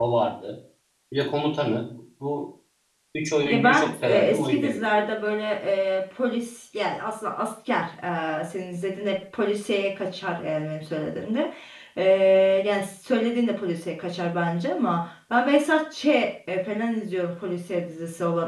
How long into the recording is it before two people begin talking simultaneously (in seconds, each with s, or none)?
3.5 s